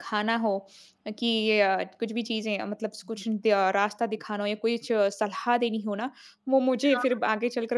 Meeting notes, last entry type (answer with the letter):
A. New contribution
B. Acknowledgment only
B